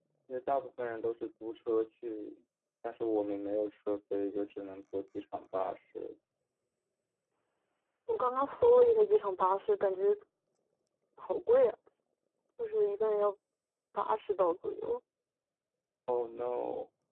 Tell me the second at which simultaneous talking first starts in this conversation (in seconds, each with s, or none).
none